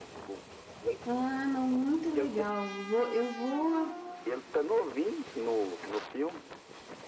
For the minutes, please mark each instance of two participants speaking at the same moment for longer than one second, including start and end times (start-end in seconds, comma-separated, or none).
none